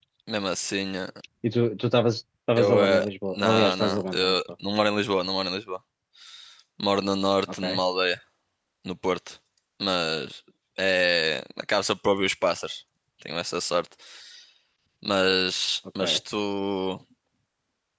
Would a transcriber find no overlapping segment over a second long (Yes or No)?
No